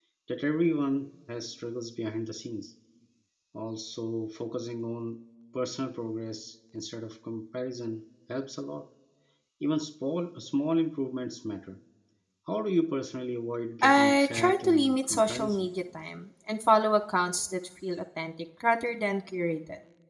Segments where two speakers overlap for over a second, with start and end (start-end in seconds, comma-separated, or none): 13.8-15.7